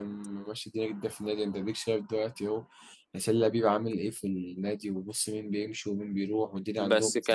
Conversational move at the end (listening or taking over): taking over